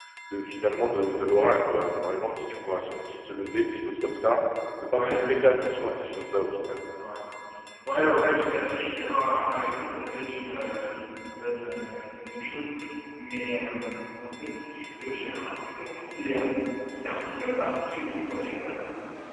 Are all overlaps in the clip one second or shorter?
Yes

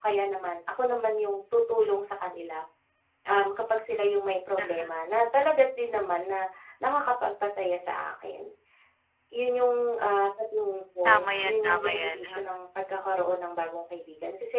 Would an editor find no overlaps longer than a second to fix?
No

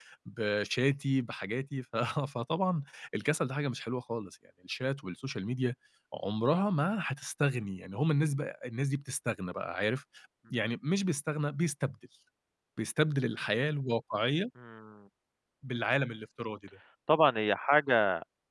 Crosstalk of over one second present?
No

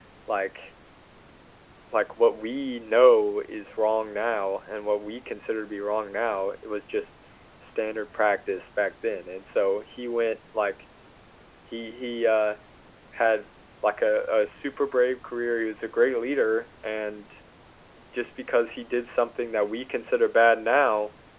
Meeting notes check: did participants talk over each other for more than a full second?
No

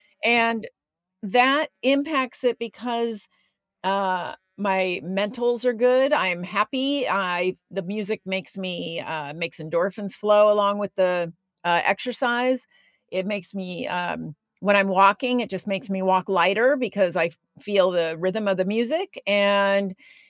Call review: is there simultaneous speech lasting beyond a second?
No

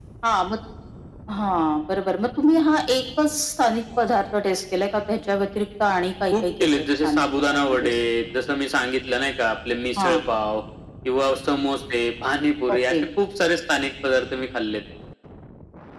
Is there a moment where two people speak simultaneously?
Yes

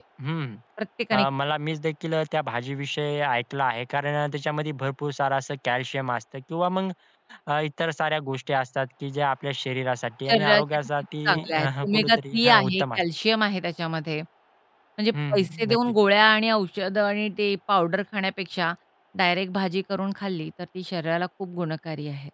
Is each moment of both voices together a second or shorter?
No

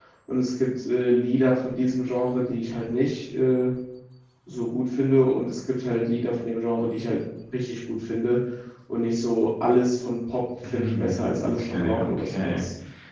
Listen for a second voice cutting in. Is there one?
Yes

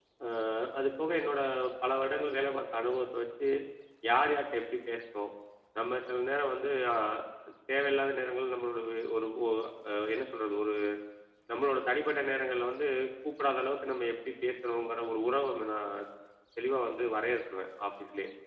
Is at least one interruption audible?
No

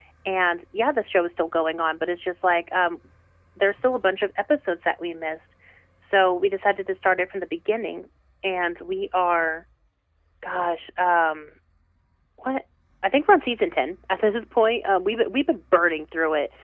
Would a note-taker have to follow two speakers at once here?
No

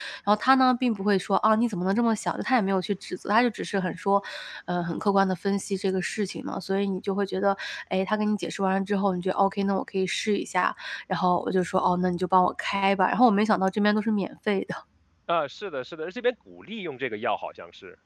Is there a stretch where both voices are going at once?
No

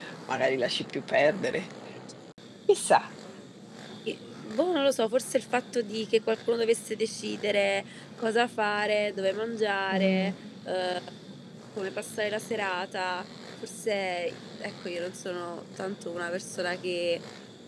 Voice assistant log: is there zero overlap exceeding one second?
Yes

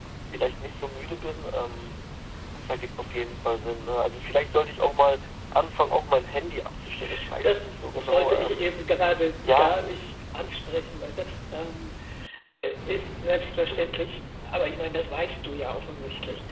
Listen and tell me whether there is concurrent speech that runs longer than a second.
Yes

